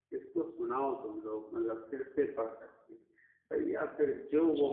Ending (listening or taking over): listening